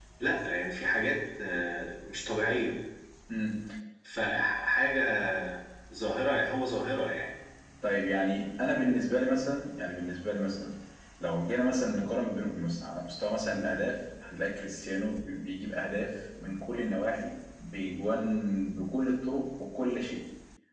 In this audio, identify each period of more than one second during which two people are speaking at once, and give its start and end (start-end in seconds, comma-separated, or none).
none